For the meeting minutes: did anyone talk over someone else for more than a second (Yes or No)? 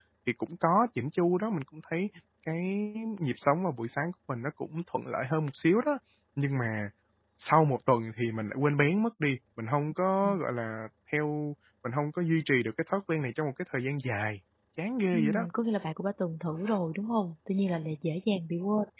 No